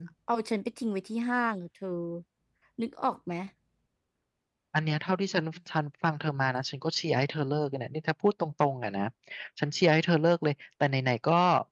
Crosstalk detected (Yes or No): No